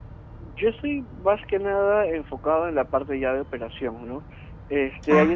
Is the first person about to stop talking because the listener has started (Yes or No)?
No